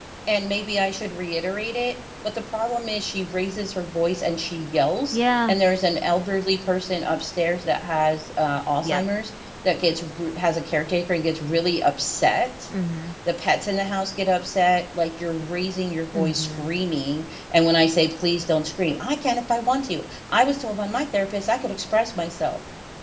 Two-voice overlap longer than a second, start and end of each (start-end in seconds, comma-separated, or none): none